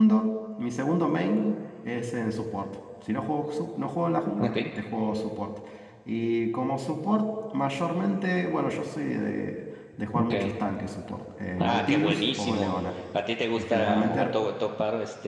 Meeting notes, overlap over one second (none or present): present